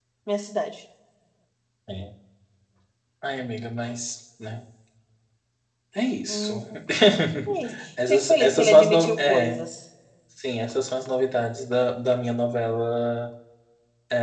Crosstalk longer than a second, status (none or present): present